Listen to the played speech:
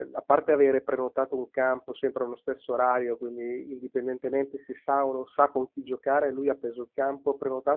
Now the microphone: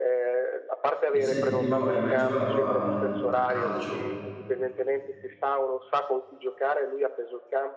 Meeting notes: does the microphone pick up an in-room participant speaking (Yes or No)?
Yes